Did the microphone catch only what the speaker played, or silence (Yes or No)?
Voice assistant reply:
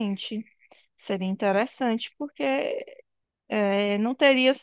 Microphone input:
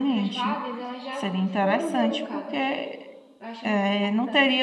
No